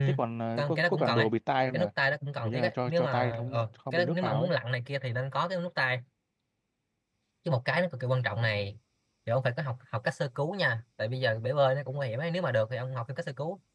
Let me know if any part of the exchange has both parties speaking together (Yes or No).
Yes